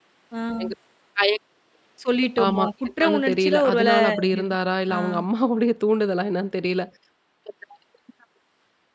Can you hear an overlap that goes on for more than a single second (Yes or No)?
Yes